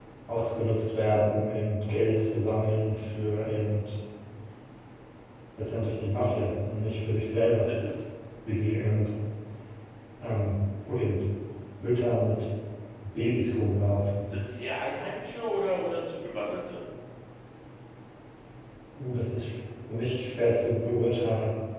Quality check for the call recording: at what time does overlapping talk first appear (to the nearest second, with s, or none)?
none